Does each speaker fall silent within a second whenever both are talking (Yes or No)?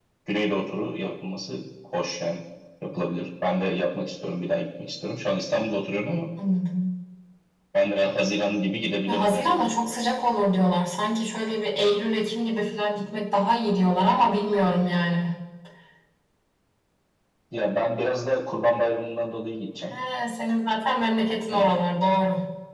Yes